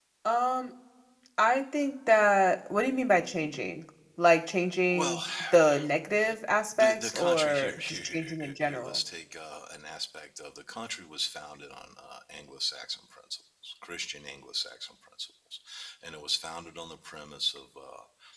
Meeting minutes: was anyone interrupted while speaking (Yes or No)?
Yes